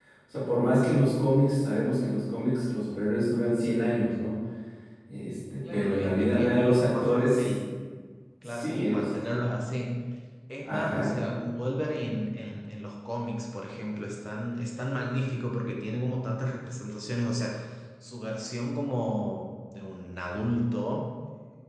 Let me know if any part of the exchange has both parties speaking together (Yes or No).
Yes